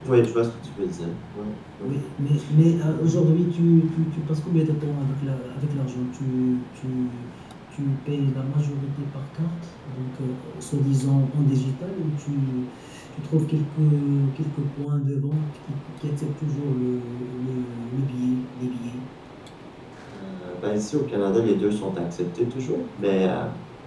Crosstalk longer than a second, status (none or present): none